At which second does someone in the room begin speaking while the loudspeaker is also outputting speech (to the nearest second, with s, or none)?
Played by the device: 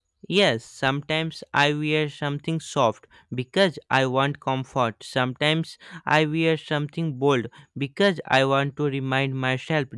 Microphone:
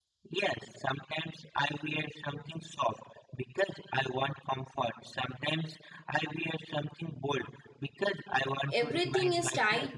9 s